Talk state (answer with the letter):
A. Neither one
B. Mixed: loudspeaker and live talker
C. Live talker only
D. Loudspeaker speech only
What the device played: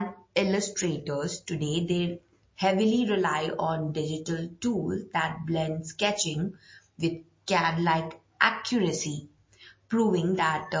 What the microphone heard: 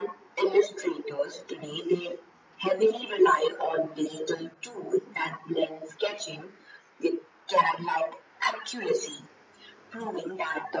D